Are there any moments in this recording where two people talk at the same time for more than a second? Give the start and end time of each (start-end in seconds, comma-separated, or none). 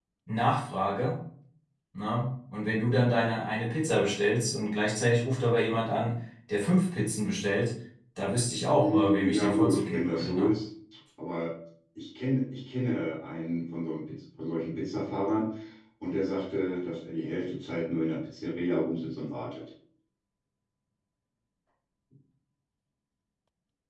8.8-10.5